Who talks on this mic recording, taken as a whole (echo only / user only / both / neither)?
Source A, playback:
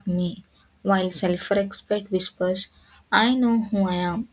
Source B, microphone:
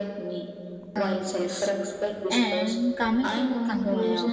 both